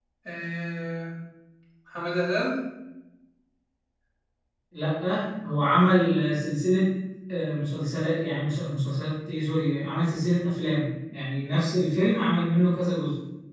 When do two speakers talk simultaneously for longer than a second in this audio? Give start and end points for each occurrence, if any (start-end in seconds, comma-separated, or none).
none